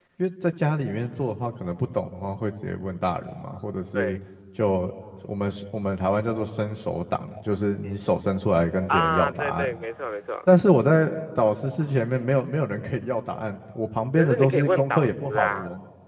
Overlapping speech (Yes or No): Yes